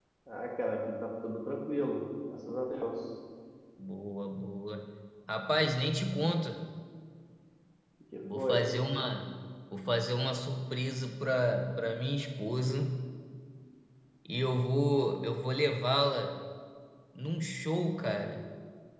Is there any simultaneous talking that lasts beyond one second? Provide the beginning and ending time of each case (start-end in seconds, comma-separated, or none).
none